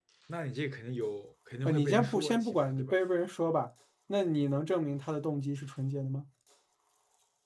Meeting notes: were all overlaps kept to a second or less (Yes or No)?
No